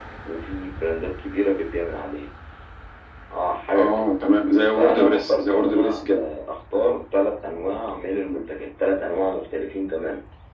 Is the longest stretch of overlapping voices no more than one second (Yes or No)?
No